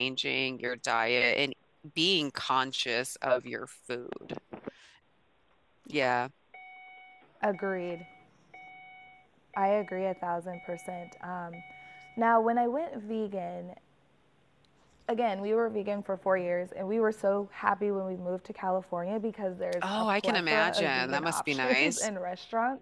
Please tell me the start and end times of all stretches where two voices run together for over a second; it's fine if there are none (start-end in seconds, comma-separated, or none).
19.8-22.1